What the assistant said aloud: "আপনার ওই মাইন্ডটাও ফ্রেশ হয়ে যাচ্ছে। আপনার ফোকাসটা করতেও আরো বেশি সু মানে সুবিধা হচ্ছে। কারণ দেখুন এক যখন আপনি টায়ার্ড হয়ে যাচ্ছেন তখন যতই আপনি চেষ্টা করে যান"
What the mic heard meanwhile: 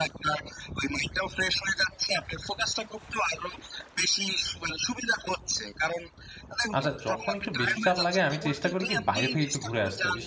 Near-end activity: present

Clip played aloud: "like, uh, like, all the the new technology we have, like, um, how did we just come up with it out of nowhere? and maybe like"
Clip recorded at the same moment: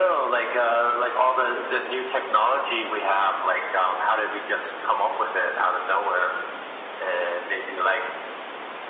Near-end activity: none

